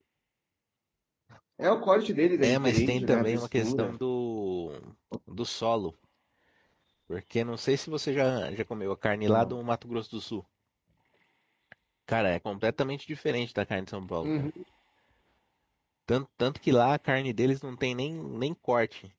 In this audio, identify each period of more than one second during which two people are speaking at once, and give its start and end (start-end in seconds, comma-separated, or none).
2.4-3.9